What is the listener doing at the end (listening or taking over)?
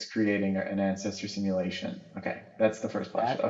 taking over